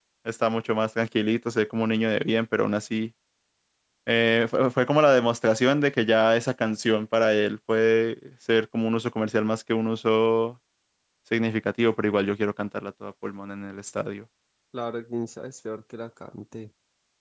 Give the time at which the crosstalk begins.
none

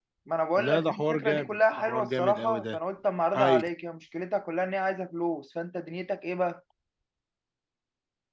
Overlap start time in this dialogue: 0.7 s

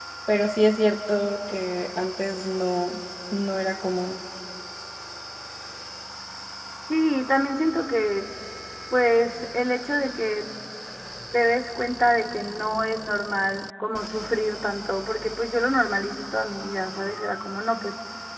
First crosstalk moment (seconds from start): none

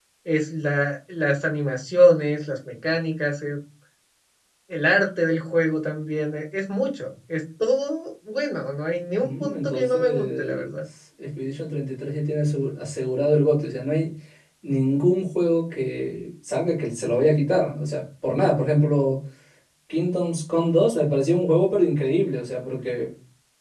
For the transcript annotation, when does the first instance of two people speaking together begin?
9.2 s

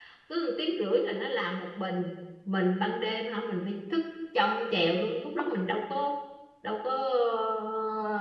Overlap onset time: none

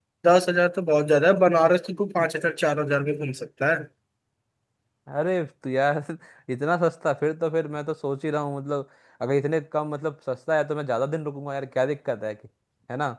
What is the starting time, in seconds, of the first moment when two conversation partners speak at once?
none

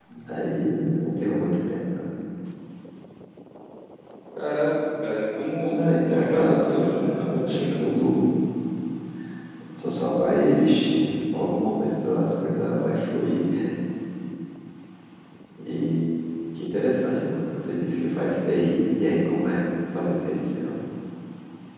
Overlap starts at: 5.7 s

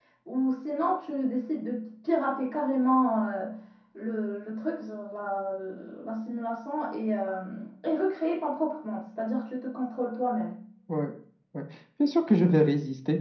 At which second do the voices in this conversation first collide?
none

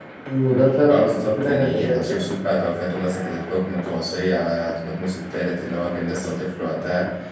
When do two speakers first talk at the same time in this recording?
0.9 s

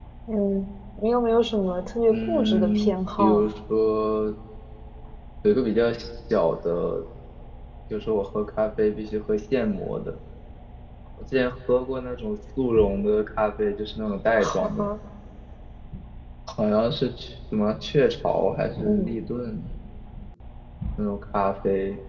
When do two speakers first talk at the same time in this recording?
2.1 s

